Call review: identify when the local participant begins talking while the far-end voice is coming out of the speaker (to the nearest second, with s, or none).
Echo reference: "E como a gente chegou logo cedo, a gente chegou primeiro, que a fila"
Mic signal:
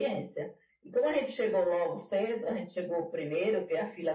none